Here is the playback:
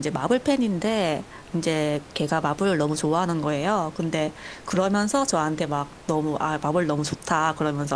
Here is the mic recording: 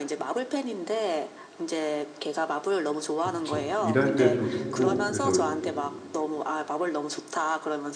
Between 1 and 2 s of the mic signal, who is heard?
echo only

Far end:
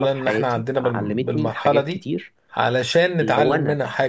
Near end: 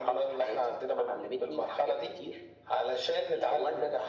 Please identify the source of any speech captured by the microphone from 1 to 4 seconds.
echo only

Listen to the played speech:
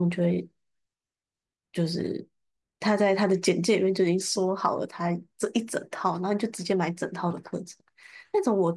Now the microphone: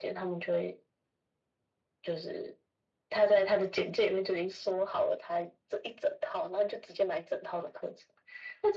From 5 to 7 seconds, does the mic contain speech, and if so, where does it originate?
echo only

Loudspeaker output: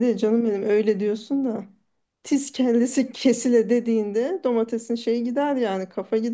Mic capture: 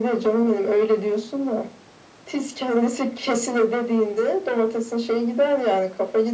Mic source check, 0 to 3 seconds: echo only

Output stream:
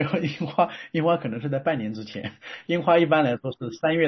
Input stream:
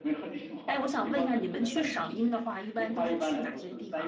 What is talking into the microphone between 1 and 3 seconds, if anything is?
both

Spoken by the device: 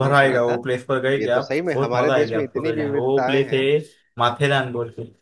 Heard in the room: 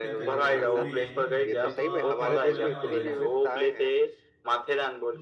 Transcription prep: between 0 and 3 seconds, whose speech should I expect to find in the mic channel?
both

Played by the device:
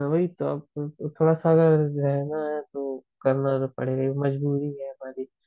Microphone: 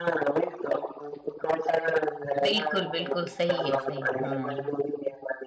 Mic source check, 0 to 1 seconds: echo only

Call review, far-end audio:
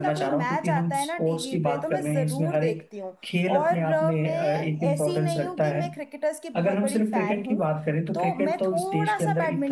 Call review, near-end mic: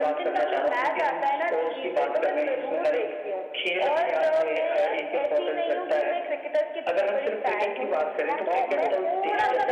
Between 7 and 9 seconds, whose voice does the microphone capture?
both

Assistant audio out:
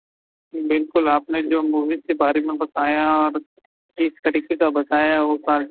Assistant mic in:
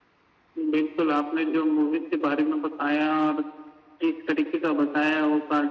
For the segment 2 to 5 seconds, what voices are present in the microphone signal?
echo only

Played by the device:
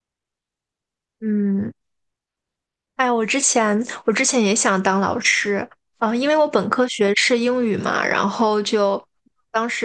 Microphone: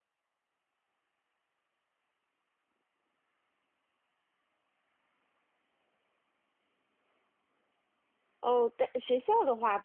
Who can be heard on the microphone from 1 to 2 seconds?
neither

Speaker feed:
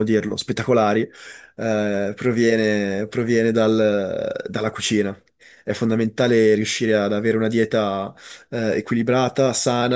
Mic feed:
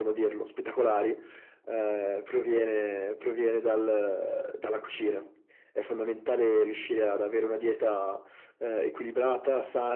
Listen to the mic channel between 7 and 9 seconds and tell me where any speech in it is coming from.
echo only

